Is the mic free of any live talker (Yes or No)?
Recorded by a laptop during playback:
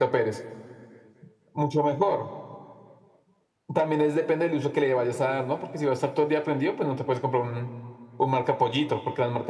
Yes